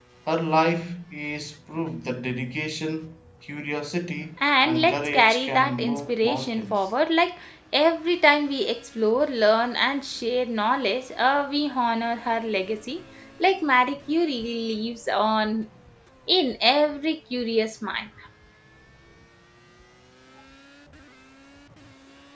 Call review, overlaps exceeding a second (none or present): present